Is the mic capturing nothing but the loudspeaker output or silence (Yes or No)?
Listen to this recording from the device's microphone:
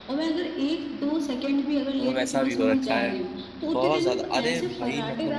No